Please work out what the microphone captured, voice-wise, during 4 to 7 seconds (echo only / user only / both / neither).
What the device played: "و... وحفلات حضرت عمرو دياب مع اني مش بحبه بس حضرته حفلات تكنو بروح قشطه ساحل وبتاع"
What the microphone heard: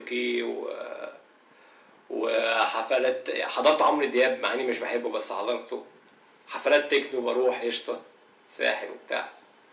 echo only